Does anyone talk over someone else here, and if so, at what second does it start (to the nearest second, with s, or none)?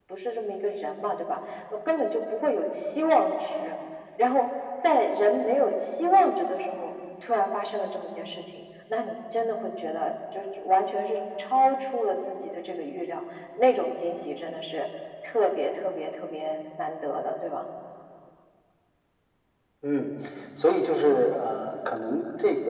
none